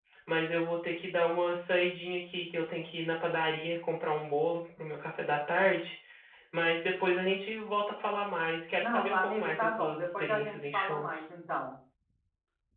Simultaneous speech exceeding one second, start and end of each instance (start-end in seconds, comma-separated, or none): 8.8-11.3